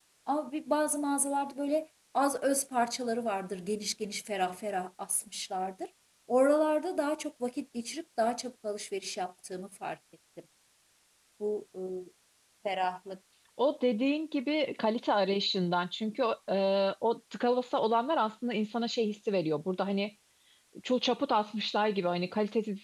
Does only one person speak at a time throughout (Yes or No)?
Yes